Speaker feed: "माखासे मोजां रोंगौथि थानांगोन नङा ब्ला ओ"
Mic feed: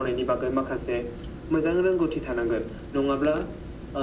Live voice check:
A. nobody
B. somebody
A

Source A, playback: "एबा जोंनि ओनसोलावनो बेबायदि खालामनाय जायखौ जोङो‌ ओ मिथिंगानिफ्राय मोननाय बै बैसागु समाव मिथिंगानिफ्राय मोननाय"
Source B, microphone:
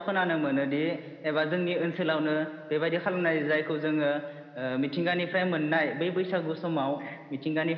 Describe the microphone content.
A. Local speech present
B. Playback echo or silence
B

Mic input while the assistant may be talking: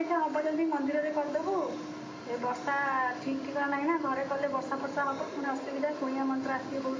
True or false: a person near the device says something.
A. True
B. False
B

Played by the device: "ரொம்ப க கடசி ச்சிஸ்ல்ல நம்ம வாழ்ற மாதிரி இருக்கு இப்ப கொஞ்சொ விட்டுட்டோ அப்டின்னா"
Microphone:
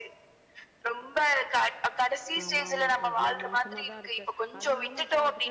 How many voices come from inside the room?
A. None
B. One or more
B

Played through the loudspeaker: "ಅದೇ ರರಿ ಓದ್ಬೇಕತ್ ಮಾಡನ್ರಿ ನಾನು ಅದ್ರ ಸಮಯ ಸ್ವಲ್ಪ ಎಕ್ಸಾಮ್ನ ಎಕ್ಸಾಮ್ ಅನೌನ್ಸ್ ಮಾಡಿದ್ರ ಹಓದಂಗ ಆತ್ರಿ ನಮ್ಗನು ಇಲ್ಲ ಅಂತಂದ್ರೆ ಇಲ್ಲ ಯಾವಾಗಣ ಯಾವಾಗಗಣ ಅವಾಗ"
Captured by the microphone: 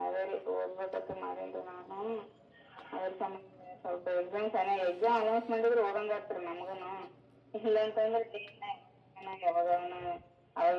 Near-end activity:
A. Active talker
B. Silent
B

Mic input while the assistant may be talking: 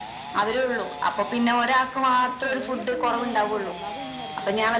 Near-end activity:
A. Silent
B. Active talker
B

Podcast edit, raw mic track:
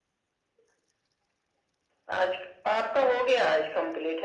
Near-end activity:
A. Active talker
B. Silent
B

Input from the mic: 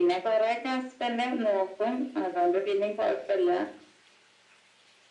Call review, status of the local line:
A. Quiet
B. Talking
A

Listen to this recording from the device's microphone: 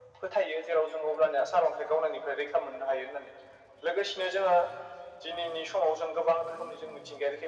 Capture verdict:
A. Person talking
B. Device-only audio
B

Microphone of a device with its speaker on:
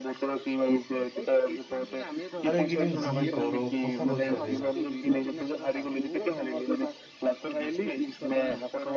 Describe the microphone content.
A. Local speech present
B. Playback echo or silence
A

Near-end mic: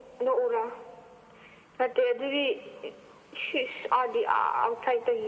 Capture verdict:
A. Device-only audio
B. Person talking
A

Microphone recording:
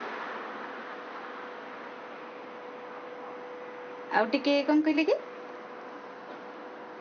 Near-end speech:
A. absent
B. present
B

